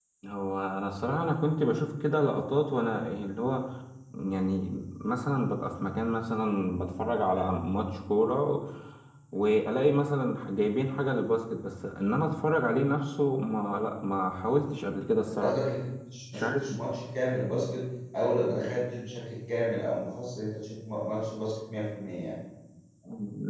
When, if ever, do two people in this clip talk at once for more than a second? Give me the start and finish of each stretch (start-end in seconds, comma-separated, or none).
none